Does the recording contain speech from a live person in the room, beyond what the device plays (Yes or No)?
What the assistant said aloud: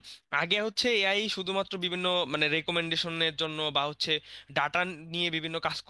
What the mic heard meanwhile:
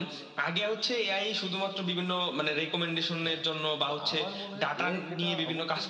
Yes